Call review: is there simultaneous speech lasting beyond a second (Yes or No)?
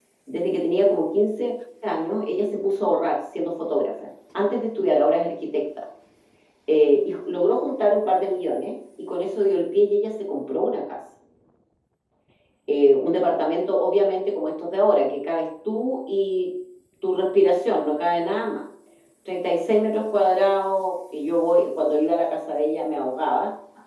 No